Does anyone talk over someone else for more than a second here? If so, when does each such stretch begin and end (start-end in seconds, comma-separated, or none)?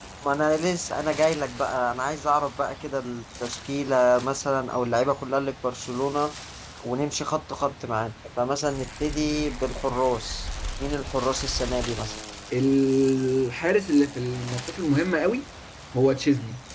none